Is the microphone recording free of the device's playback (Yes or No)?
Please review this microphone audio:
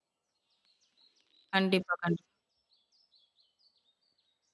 Yes